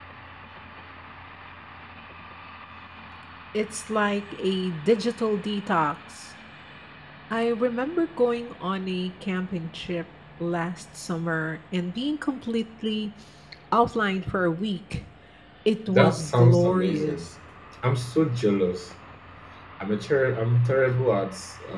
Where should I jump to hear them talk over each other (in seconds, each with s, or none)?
15.9 s